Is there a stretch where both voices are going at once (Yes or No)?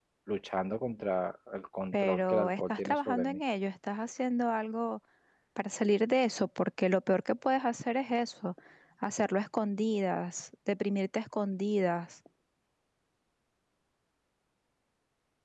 Yes